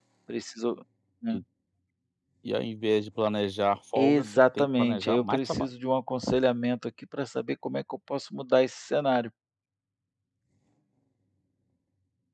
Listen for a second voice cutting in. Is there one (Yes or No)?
Yes